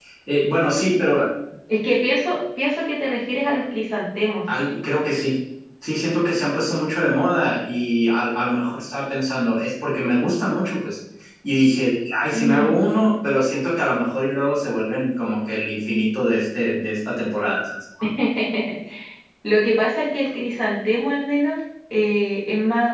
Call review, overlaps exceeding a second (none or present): none